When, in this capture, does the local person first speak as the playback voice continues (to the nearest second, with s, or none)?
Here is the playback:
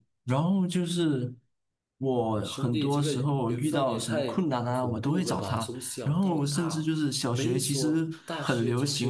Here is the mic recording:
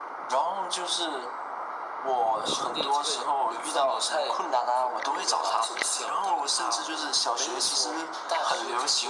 none